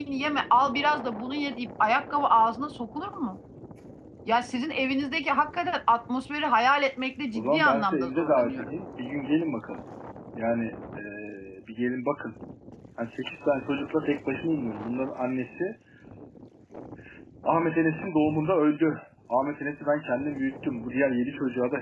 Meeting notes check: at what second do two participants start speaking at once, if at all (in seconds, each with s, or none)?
7.4 s